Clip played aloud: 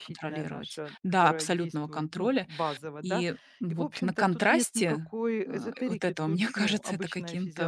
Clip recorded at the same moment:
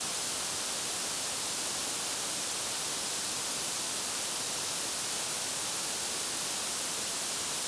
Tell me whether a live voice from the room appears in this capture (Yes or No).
No